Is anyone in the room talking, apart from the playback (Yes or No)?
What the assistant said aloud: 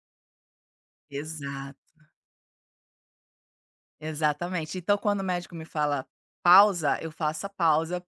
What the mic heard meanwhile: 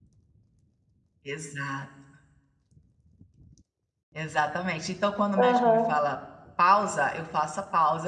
Yes